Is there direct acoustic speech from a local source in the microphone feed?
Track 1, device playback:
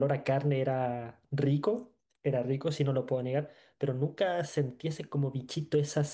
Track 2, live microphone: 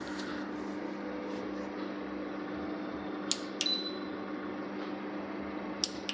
No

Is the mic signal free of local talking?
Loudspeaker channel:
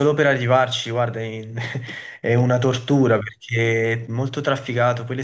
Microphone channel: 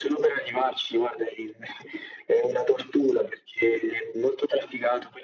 Yes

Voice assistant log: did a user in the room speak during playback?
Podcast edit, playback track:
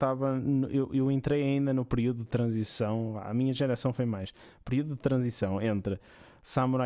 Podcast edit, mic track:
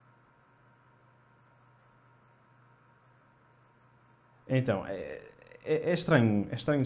Yes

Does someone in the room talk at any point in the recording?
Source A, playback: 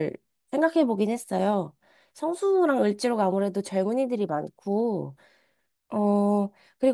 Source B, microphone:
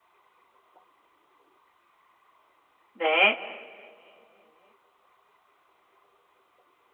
Yes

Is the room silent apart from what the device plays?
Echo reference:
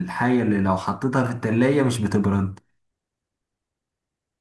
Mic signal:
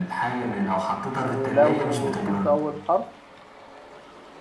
No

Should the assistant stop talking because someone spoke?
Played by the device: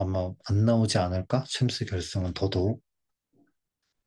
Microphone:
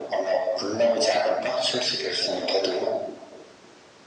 No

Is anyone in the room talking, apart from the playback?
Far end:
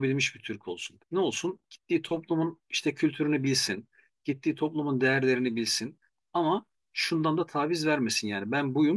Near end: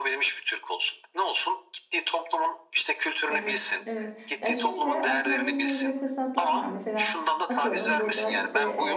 Yes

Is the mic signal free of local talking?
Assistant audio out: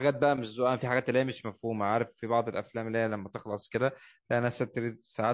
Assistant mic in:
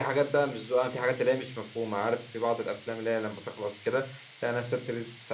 Yes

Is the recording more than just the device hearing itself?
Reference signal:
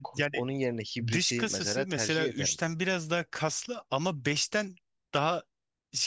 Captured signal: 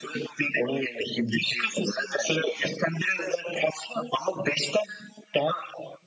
No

